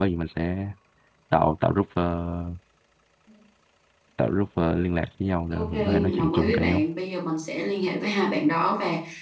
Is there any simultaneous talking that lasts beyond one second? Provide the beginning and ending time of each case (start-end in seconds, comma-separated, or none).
5.5-6.8